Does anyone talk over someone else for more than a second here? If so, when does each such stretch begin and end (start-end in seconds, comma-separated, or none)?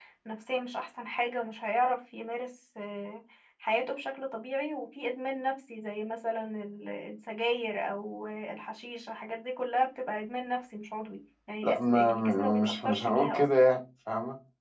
11.6-13.4